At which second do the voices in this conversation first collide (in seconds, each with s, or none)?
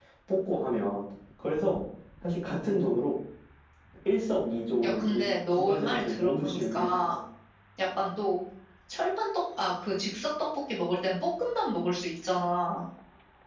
4.8 s